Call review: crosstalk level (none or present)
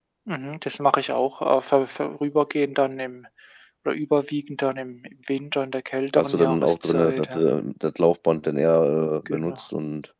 present